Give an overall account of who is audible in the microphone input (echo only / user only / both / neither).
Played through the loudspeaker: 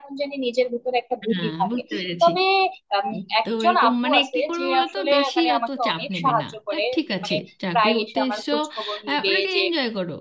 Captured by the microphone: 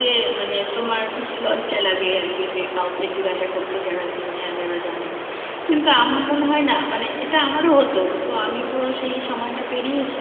user only